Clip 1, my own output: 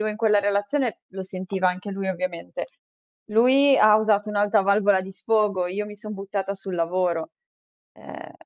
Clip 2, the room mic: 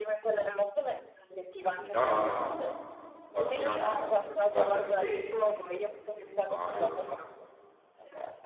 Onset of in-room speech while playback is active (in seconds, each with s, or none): 1.7 s